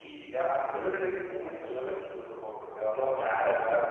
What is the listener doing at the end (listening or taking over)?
taking over